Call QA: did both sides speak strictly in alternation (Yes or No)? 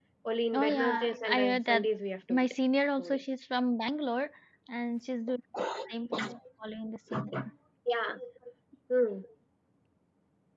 No